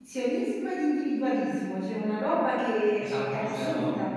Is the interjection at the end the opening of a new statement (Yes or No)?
Yes